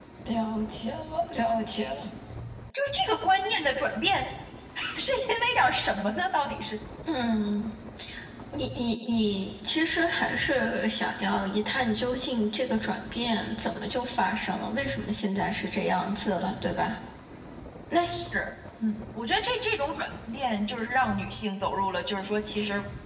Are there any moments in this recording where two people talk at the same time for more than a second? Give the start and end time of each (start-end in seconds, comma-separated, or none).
none